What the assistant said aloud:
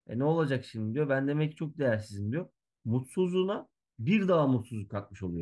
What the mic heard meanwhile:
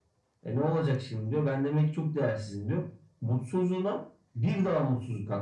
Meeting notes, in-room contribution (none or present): none